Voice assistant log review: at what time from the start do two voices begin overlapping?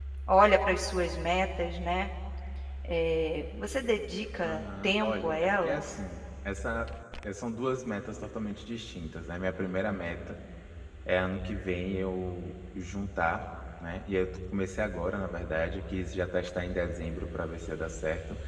4.4 s

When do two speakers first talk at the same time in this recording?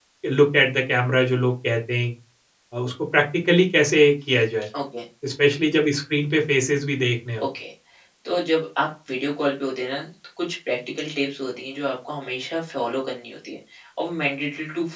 none

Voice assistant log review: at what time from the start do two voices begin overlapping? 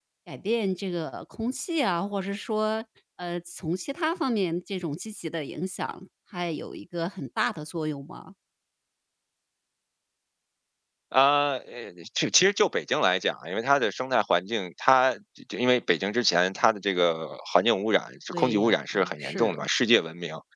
18.3 s

